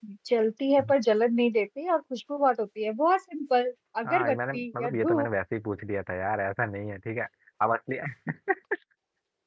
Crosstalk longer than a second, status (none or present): present